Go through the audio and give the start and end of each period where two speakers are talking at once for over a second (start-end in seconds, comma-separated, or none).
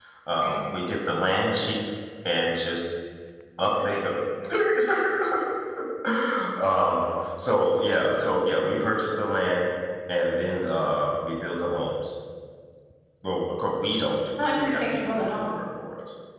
14.4-15.6